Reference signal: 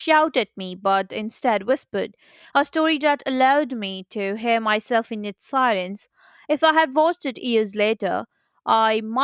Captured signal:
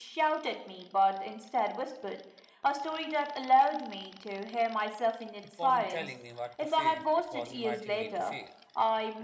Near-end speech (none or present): present